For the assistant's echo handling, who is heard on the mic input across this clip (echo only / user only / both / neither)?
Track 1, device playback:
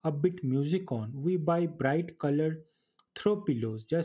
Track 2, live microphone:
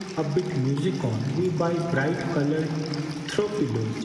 echo only